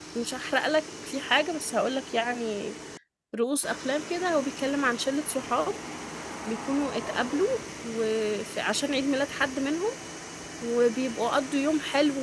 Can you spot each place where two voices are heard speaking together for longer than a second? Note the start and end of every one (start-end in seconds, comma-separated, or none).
none